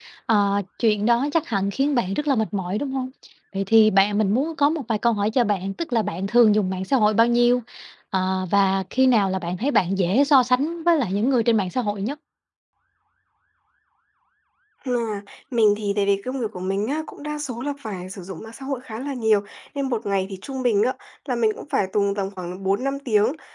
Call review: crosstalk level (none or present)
none